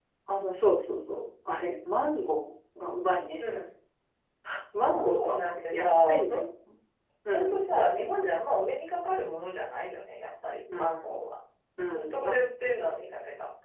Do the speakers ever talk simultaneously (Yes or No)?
Yes